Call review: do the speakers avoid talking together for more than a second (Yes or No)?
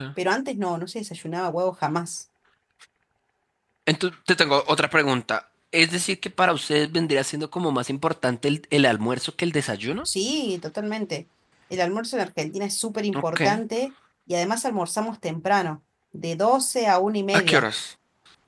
Yes